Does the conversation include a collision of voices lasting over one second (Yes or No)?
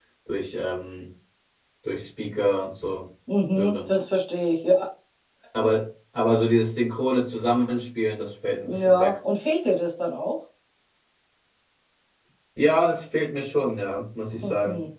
No